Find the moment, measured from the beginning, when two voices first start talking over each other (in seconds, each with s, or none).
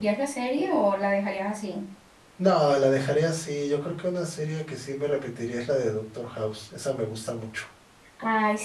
none